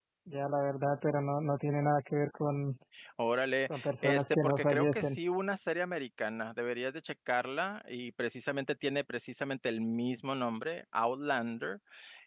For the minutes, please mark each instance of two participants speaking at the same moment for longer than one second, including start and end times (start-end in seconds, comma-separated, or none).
3.7-5.2